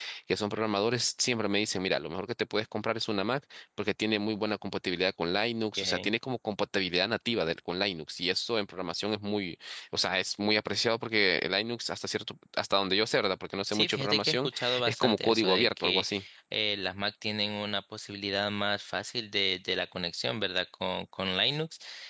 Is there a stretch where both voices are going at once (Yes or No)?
Yes